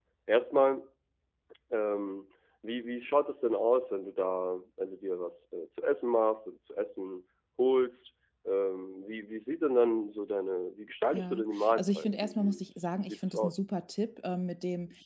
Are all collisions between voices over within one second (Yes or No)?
No